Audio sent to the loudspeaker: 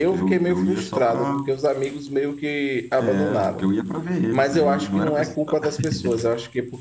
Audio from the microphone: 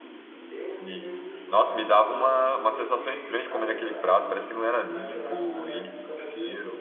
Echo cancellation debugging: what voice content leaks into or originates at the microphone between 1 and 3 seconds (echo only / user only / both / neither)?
both